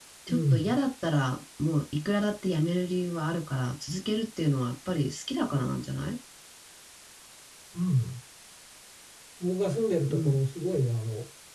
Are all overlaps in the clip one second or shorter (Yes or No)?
Yes